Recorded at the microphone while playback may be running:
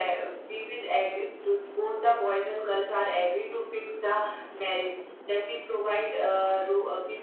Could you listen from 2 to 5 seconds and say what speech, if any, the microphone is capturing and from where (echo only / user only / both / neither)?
echo only